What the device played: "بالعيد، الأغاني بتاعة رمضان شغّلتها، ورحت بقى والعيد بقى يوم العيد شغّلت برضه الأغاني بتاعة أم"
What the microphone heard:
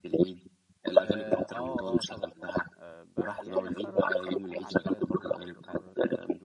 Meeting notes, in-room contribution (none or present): present